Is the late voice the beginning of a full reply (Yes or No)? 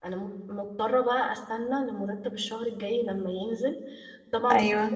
No